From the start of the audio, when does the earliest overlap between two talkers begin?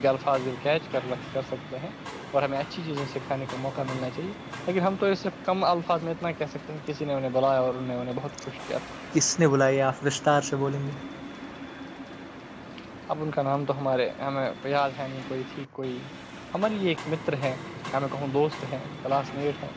none

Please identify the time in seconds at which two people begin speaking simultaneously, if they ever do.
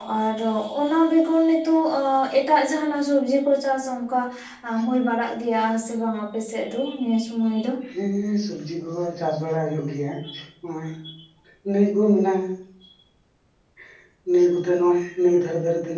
none

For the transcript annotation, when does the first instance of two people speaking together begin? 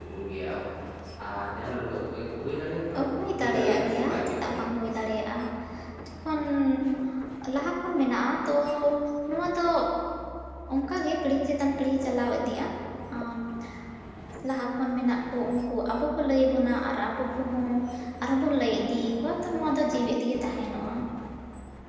3.4 s

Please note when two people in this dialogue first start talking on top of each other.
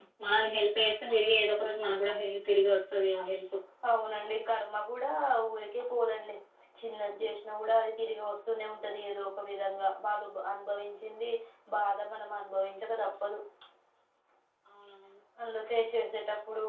none

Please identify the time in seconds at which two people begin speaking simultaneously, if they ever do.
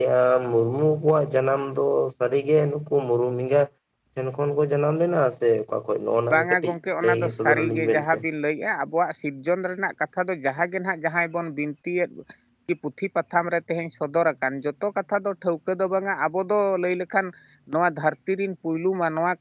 6.3 s

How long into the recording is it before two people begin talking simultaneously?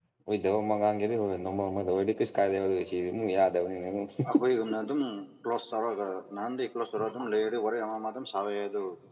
none

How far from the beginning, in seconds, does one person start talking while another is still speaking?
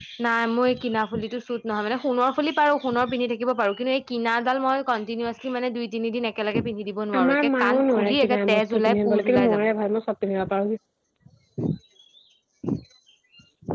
7.1 s

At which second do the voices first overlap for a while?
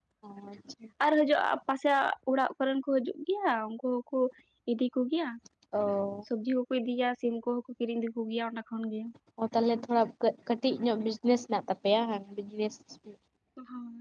none

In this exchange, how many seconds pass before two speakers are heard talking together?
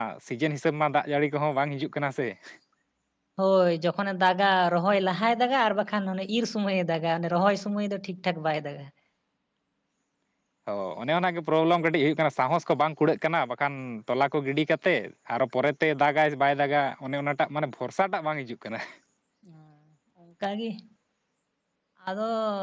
none

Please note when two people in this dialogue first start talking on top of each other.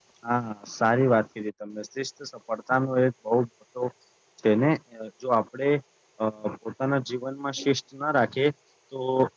none

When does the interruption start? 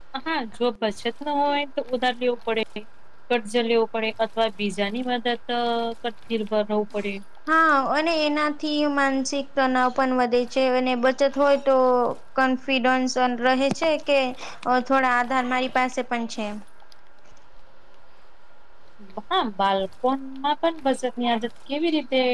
none

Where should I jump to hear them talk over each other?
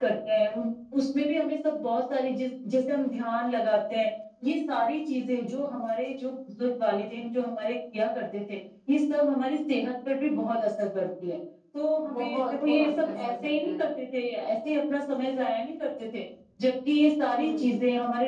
12.2 s

